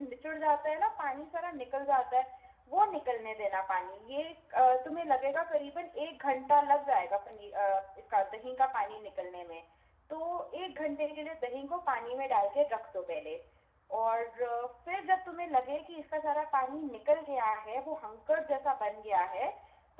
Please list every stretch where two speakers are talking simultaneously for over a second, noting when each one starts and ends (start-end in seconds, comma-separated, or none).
none